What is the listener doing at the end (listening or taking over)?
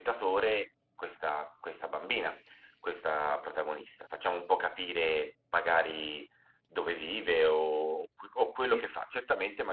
listening